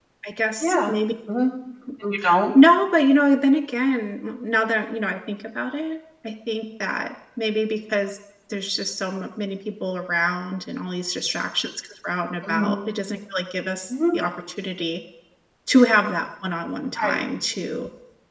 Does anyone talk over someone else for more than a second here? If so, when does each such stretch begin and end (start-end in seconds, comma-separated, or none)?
none